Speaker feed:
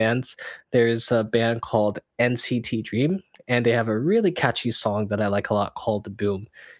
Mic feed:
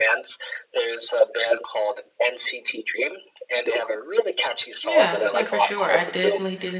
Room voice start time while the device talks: 4.9 s

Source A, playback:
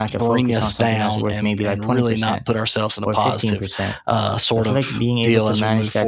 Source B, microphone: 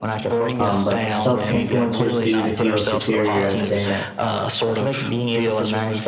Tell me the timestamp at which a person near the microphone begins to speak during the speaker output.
0.6 s

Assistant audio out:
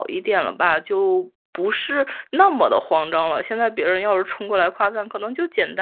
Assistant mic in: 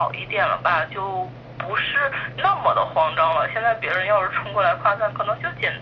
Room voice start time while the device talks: none

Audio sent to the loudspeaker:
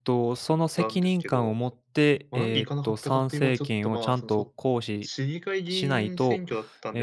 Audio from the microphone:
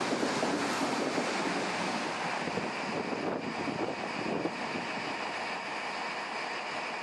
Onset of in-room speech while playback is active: none

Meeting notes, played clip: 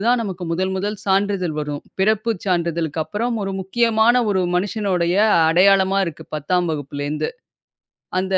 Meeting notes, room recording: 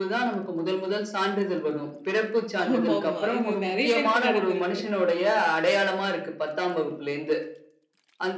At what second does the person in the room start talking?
2.6 s

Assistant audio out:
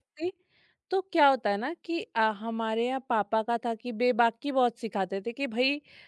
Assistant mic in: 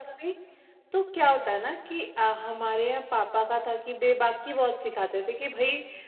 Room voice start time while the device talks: none

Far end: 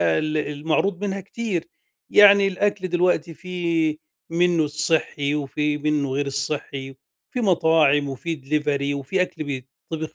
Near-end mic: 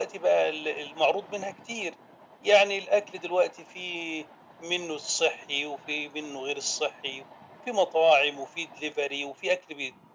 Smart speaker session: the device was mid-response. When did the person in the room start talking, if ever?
none

